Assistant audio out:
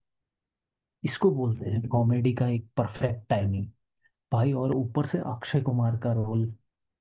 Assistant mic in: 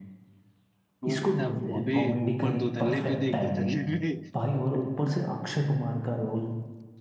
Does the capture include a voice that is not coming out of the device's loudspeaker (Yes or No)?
Yes